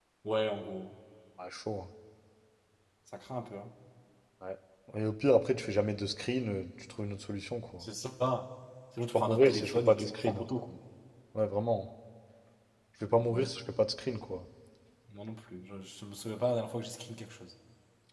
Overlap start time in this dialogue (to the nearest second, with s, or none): 9 s